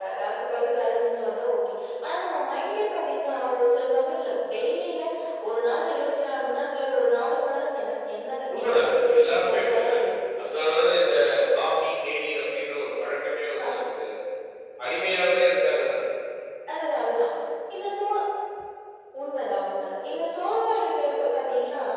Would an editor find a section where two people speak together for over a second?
Yes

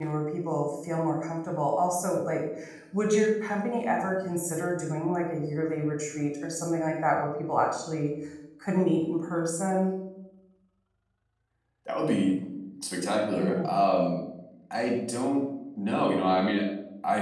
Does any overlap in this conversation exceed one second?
No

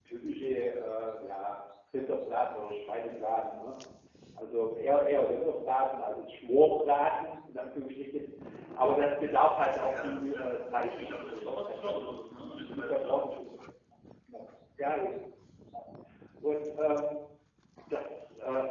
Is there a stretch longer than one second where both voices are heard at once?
Yes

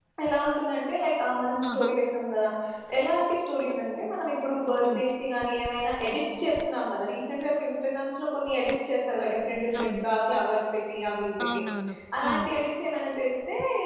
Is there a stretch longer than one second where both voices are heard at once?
No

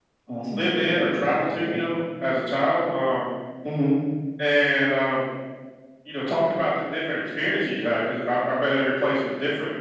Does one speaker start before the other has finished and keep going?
Yes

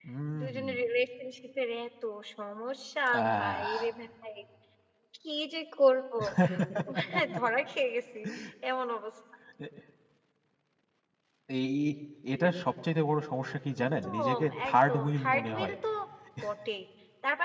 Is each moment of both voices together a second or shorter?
No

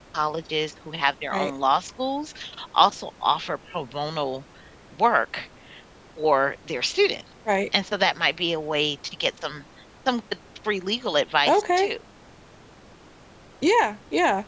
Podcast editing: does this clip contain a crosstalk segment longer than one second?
No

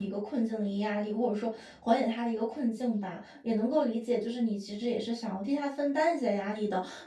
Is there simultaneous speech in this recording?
No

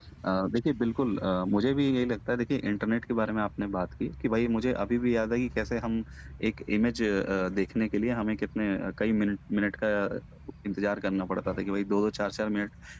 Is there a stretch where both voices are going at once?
No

